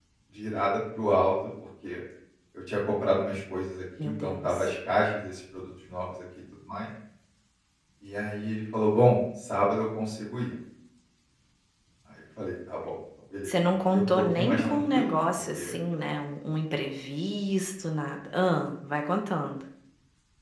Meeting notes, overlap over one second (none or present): present